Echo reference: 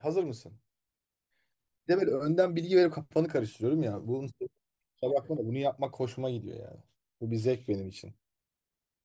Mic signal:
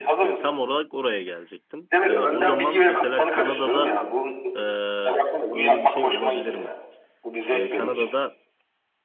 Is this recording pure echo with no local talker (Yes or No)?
No